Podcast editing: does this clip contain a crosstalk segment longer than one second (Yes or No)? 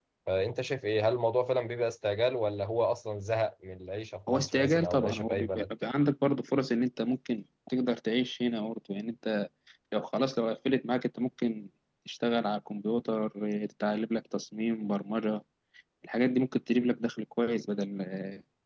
Yes